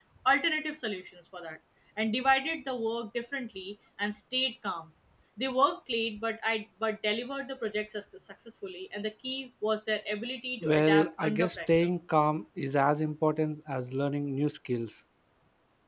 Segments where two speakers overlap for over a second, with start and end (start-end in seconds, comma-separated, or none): 10.6-11.9